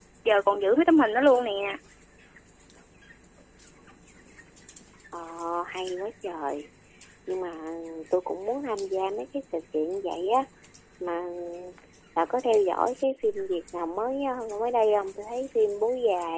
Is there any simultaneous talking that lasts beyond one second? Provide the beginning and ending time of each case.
none

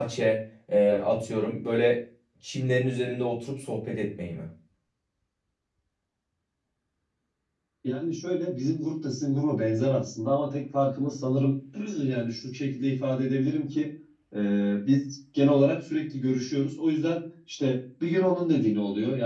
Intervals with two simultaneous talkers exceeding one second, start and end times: none

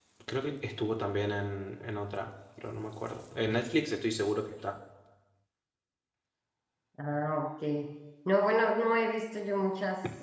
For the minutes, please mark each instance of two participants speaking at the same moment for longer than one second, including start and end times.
none

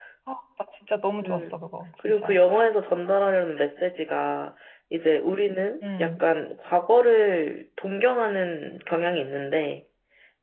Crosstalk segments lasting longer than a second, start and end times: none

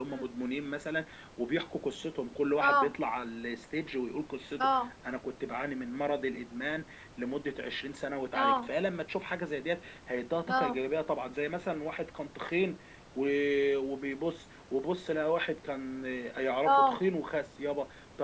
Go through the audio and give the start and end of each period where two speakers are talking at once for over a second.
none

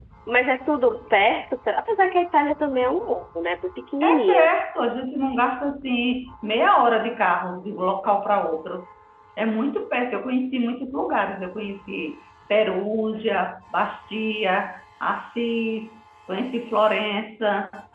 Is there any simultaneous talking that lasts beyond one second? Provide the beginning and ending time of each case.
none

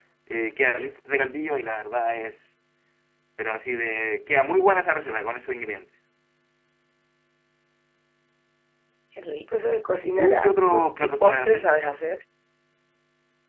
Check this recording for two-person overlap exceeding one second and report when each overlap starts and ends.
10.0-11.7

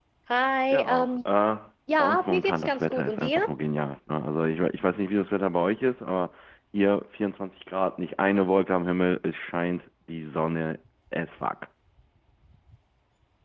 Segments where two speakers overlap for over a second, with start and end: 2.0-3.5

